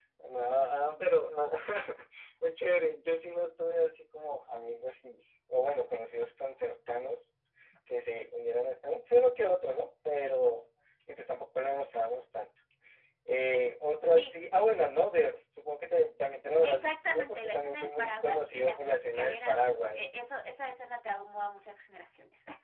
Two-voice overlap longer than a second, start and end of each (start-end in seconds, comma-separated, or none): 16.6-20.1